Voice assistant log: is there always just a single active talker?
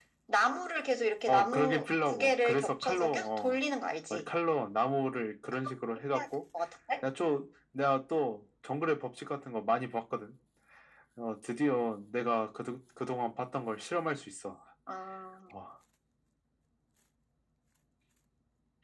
No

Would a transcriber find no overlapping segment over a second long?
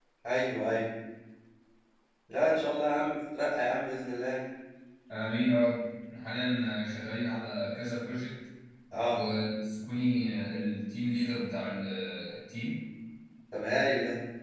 Yes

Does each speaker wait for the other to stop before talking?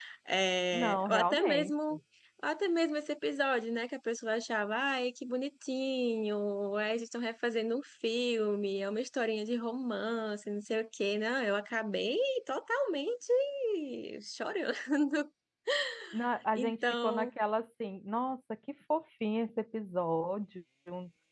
No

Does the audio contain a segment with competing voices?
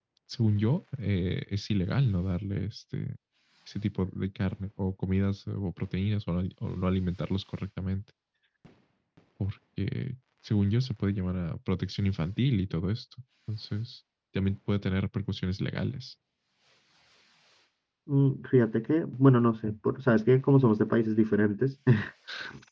No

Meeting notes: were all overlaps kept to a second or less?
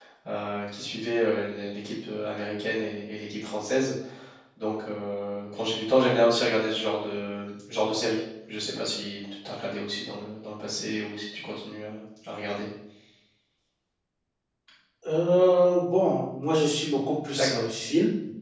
Yes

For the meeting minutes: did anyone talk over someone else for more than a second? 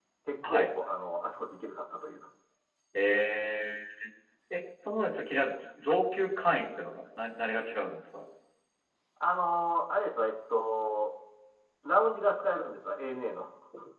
No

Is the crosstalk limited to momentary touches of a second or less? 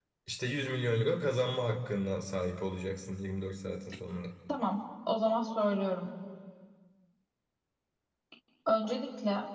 Yes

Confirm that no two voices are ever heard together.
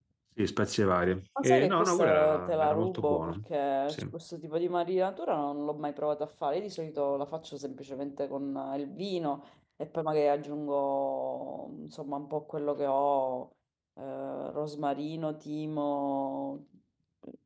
No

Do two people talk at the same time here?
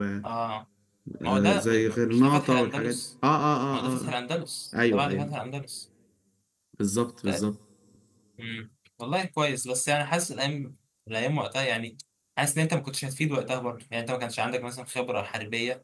Yes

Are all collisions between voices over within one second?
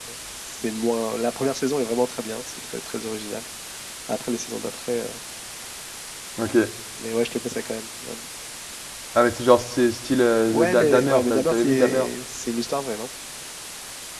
No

